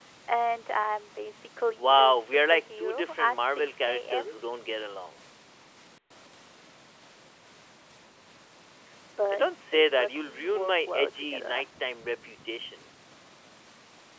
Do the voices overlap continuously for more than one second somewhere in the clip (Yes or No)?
Yes